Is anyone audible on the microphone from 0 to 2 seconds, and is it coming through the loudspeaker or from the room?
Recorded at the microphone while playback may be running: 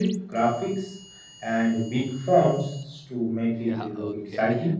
echo only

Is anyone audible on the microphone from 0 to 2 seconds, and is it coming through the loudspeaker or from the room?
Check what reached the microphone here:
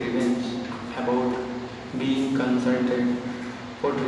echo only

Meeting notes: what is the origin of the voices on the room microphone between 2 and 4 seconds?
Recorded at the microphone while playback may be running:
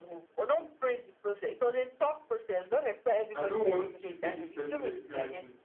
both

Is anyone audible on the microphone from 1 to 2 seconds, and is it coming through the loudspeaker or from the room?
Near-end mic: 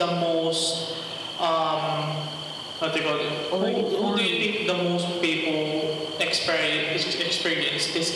echo only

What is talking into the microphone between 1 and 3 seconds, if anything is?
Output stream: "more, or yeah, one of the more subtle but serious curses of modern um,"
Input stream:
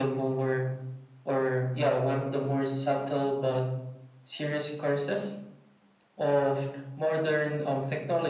echo only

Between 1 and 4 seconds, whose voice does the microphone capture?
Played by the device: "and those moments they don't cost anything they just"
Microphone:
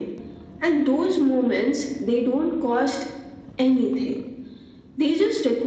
echo only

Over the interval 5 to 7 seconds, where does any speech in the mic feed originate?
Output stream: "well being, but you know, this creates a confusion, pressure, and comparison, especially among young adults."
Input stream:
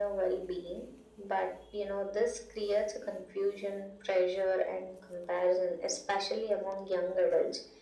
echo only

